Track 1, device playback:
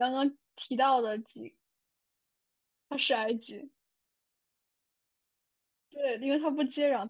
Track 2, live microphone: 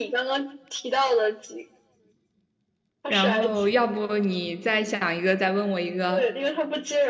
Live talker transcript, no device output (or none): 然后要不你再想一个，再问我一个。